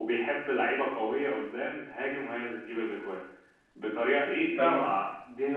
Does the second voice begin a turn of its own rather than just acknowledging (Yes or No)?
No